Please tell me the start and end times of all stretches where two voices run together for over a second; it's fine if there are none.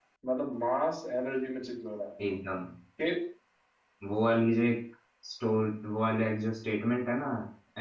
none

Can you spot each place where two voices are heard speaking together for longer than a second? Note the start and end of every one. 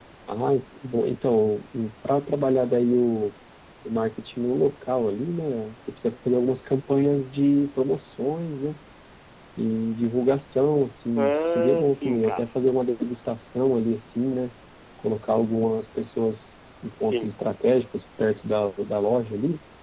11.2-12.4

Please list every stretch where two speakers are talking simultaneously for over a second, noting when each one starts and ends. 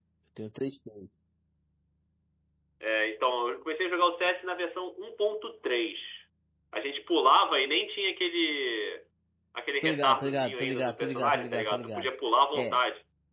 9.8-12.1

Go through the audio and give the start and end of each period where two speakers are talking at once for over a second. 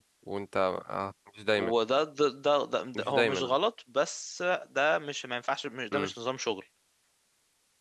none

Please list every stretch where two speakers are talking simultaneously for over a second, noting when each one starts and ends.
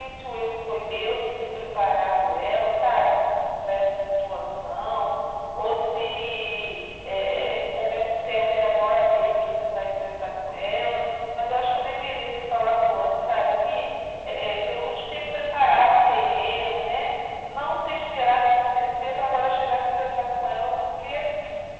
none

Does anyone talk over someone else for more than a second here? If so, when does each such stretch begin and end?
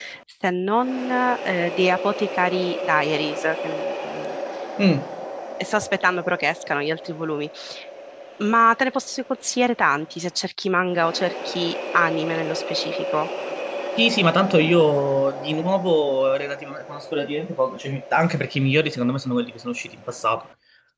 none

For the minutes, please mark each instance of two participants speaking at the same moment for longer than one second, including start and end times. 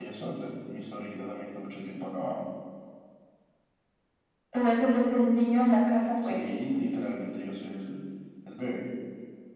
none

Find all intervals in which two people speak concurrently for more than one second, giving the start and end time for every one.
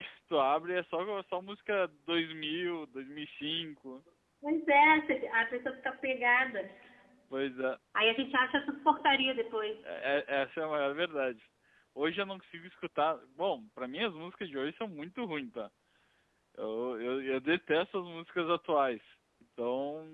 none

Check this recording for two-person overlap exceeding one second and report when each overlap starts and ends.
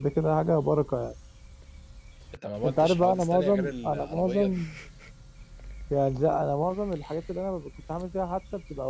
2.6-4.6

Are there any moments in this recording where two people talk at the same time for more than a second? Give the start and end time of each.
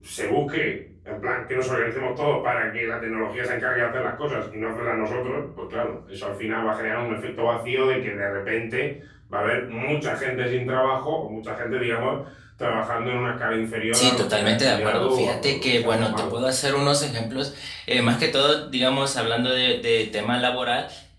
13.9-16.3

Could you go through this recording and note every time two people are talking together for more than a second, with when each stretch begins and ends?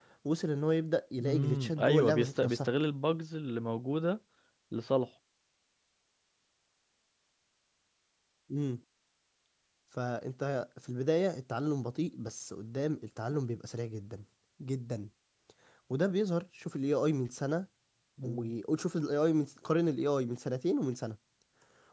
1.2-2.7

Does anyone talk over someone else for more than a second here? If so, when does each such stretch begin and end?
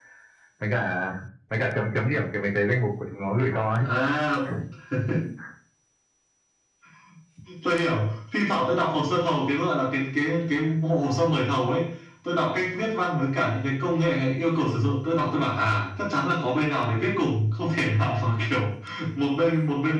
none

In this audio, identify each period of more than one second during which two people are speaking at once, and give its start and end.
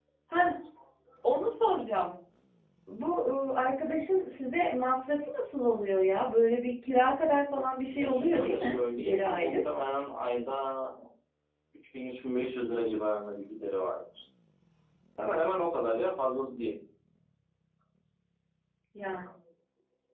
7.9-9.5

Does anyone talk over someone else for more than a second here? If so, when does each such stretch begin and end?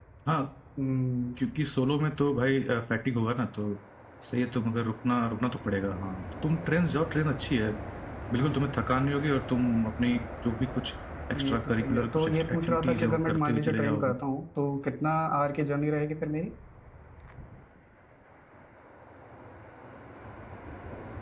11.3-14.1

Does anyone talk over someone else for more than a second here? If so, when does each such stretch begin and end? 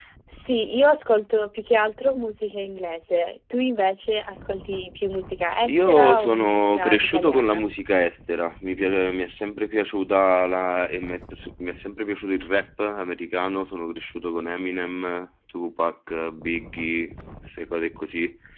5.7-7.6

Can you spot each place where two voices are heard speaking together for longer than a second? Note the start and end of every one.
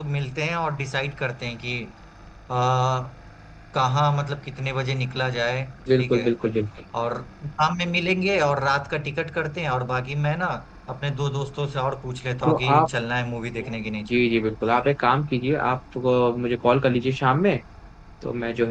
none

